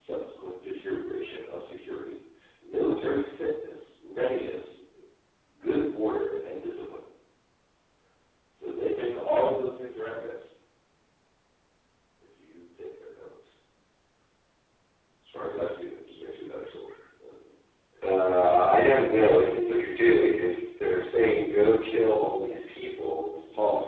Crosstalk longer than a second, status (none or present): none